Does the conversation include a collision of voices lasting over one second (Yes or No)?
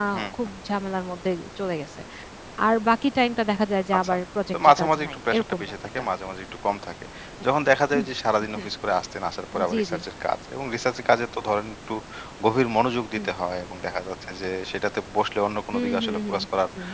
Yes